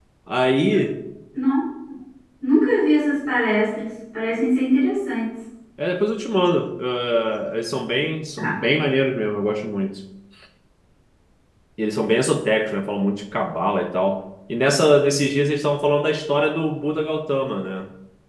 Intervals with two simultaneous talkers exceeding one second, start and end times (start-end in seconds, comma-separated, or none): none